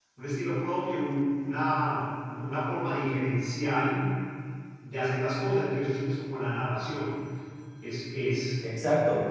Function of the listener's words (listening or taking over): taking over